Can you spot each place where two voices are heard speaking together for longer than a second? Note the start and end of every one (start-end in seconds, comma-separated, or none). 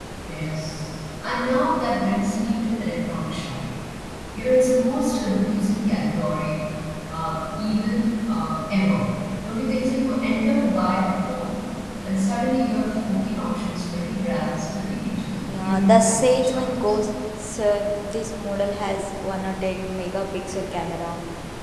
15.4-16.9